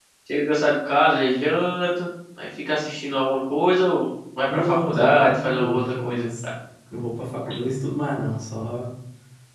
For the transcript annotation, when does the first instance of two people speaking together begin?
4.5 s

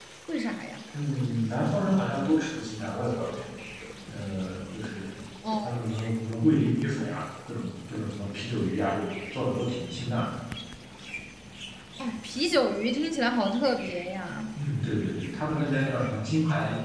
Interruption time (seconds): none

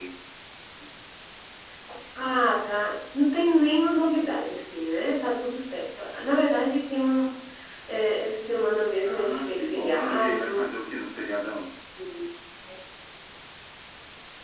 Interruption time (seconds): 9.0 s

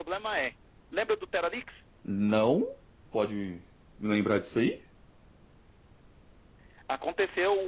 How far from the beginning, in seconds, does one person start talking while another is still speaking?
none

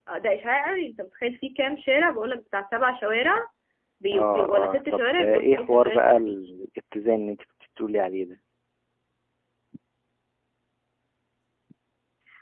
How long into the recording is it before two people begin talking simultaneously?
4.1 s

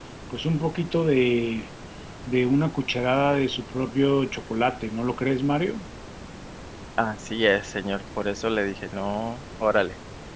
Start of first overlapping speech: none

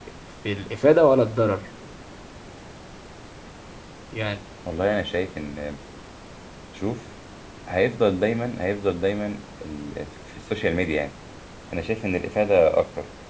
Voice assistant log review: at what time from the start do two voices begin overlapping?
none

